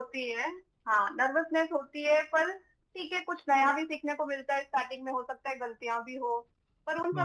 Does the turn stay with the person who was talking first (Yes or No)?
Yes